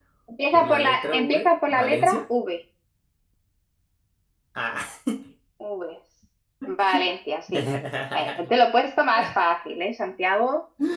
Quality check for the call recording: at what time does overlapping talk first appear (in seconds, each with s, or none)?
0.5 s